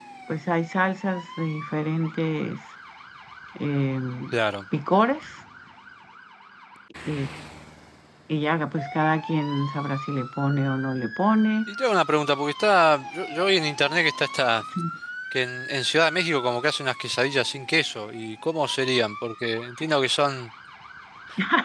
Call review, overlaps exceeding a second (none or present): none